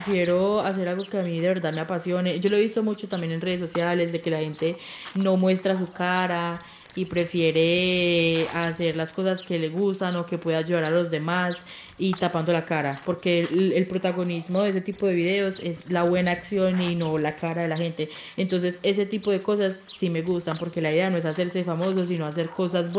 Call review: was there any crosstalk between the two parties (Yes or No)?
No